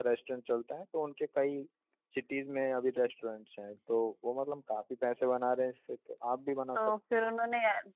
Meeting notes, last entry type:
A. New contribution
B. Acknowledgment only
A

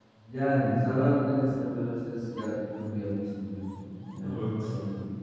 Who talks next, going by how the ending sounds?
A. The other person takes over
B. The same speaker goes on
A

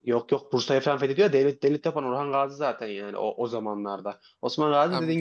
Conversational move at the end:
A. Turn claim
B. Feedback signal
B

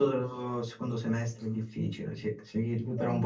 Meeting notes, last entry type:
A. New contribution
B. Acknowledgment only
B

